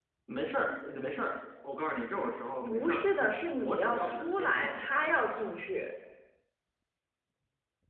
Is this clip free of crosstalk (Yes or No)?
No